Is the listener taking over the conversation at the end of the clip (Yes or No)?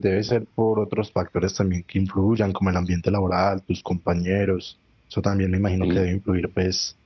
No